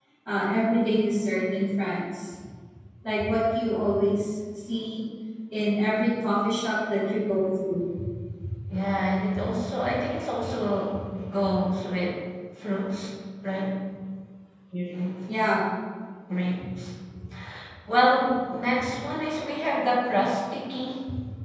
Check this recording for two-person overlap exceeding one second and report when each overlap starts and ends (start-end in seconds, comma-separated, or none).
none